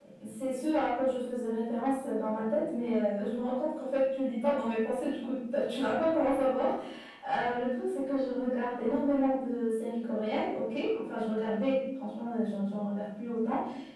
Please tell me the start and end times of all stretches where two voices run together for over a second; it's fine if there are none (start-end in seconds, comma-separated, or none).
none